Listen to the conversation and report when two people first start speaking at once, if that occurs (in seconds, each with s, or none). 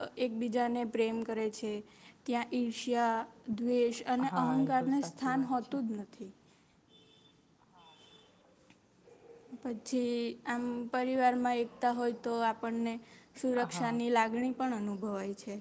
4.3 s